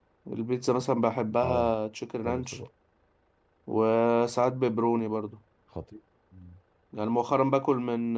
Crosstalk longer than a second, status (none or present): none